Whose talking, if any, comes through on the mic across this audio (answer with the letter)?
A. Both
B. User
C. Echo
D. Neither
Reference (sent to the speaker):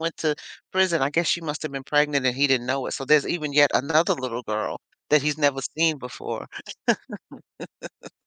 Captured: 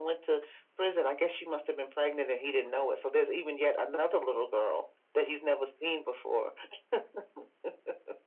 C